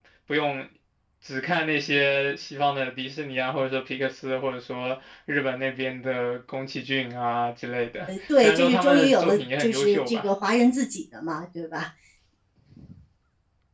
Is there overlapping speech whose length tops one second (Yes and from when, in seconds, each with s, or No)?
Yes, from 8.1 s